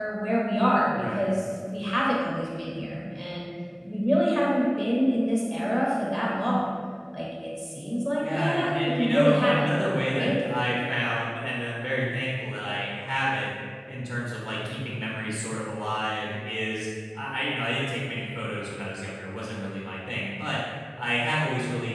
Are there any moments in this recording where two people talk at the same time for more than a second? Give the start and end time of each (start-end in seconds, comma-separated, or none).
8.2-9.7